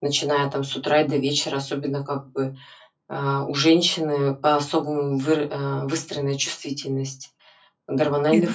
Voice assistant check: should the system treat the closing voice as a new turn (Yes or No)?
No